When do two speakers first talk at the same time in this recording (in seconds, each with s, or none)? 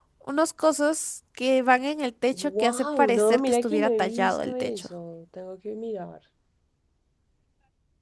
2.3 s